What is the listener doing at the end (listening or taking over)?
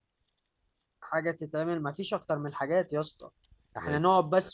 listening